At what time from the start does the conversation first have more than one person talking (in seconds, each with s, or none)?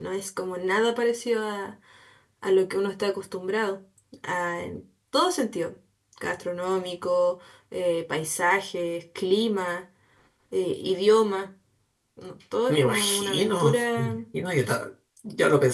12.7 s